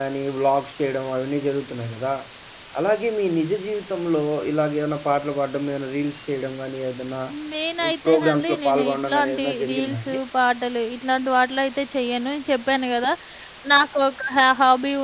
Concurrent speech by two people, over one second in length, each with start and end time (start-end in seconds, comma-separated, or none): 8.1-10.2